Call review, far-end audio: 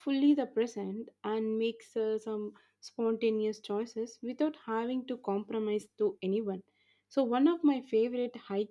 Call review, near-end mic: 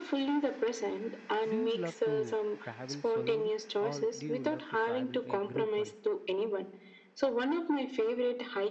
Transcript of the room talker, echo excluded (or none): Do you love to travel solely or do you love to travel a group one?